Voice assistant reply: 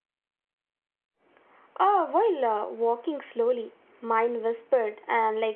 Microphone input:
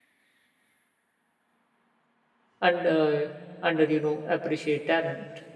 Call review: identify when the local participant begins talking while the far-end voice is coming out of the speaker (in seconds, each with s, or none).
2.6 s